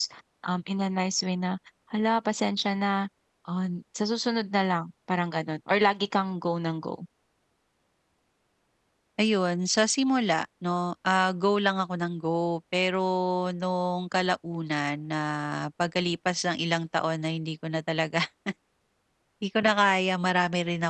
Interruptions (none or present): none